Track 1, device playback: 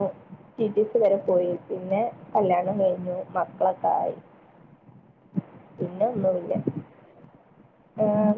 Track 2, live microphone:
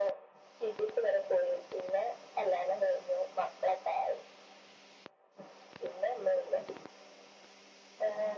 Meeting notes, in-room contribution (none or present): none